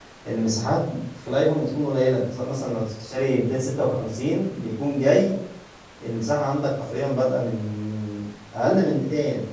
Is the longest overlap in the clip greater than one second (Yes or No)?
No